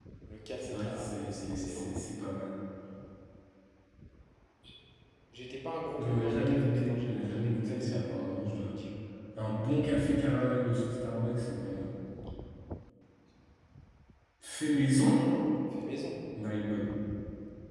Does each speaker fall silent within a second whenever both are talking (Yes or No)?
No